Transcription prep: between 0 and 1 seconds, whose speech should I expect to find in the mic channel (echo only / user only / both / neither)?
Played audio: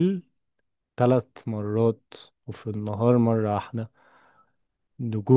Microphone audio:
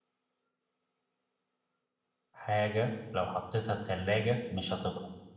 neither